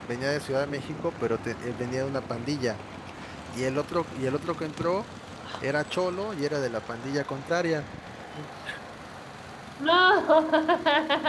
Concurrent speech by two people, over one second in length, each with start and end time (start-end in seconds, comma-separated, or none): none